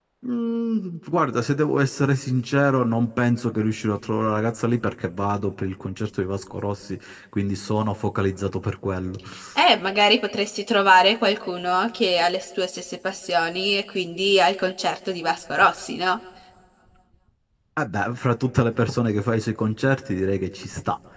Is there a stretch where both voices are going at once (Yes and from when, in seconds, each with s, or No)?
No